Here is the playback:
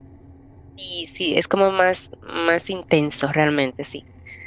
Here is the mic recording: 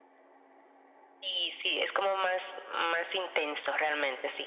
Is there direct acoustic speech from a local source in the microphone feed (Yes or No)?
No